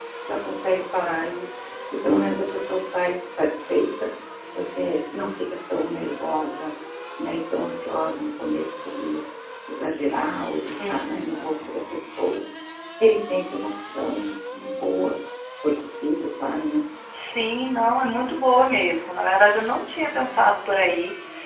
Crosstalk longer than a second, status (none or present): none